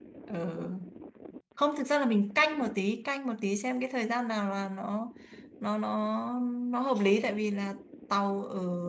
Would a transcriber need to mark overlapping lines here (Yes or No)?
No